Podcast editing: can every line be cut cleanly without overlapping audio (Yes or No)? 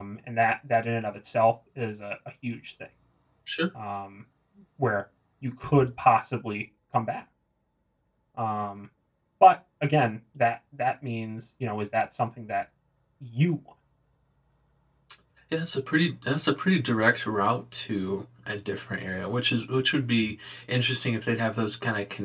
Yes